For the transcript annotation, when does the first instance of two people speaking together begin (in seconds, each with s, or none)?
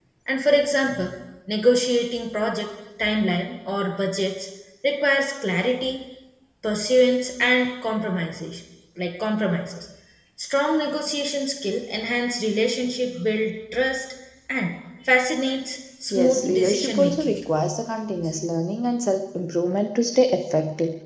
16.1 s